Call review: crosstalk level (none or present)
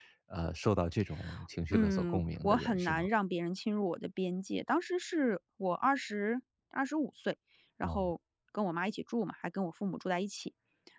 present